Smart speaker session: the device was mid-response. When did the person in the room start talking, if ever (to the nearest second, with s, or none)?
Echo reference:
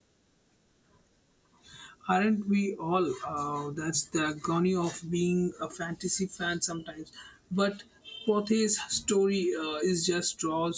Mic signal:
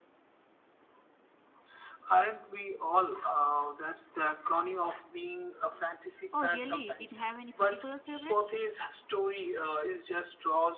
6 s